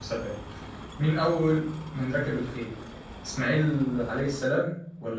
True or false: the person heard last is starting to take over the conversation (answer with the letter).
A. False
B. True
A